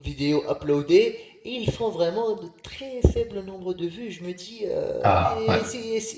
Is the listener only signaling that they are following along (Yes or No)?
Yes